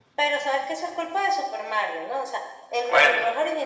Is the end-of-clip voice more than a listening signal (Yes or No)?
No